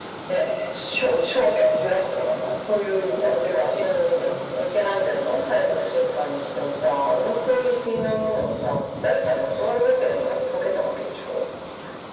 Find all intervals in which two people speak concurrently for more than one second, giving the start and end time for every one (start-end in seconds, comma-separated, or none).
3.2-4.7